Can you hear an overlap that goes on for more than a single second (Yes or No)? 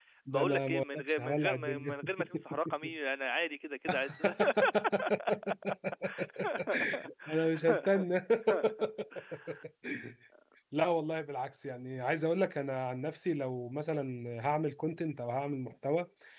Yes